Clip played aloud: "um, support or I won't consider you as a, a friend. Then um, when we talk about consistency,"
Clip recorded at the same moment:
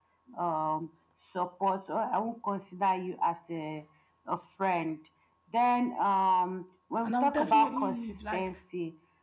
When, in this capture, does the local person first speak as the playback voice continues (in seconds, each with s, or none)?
7.0 s